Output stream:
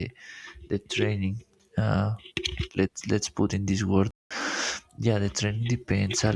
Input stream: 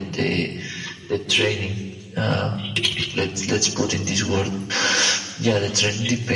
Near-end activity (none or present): none